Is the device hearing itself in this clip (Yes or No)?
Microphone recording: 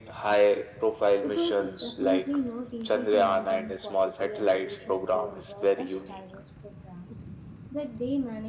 Yes